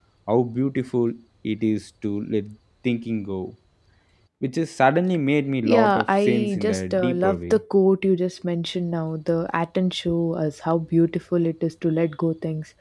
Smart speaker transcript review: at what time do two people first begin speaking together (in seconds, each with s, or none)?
5.6 s